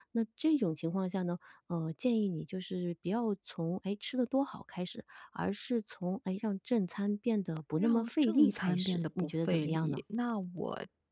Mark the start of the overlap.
7.8 s

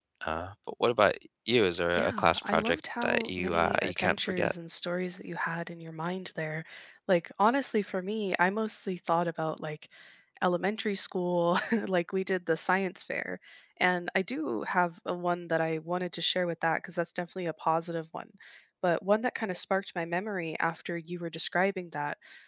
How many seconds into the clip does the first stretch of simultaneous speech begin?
1.9 s

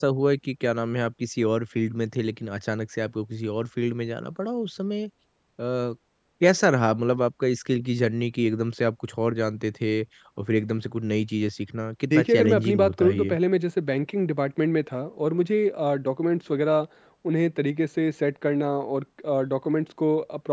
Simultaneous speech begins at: 12.1 s

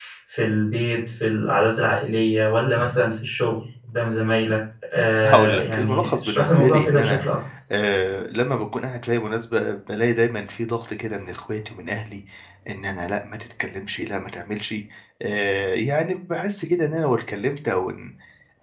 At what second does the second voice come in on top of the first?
5.2 s

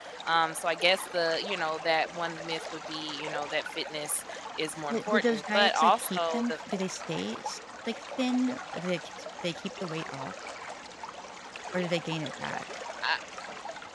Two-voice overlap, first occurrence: 4.9 s

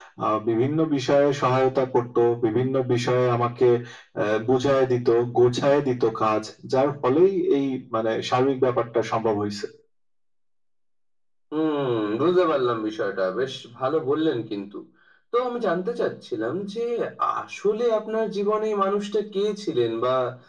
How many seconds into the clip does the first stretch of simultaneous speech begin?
none

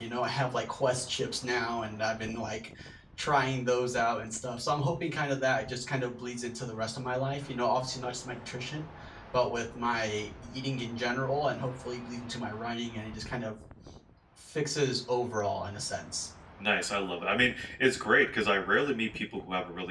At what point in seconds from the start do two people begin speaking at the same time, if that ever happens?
none

